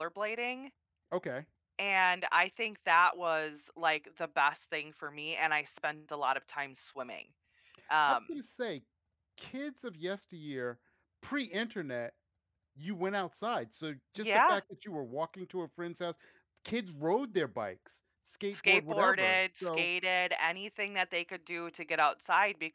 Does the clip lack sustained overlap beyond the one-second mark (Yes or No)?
No